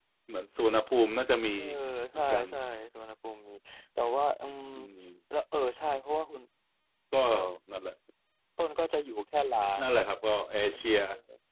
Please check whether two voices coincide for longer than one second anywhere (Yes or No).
No